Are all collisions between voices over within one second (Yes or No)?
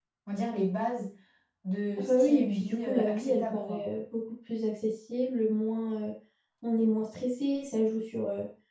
No